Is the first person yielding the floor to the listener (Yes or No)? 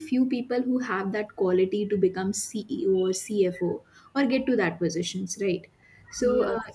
No